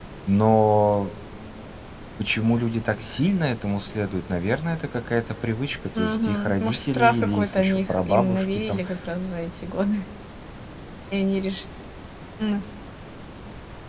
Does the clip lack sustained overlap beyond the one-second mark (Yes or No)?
No